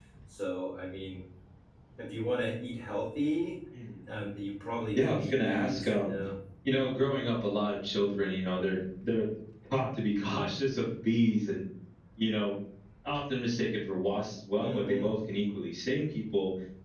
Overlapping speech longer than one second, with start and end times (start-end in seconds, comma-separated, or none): 5.0-6.2